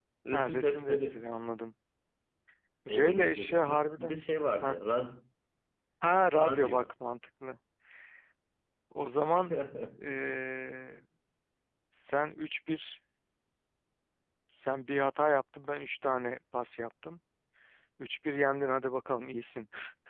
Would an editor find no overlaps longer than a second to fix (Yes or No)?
No